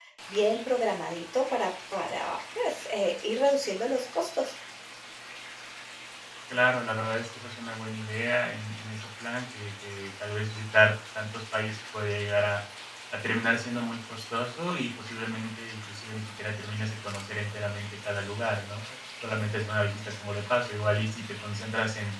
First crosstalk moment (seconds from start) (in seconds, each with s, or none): none